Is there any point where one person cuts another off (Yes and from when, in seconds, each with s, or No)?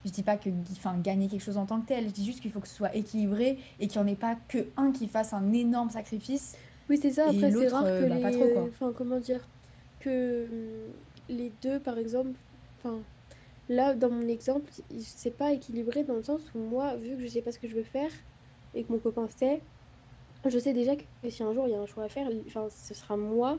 Yes, from 7.3 s